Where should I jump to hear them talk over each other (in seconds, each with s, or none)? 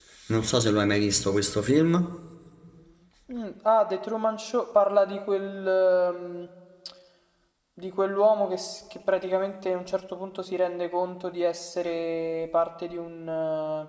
none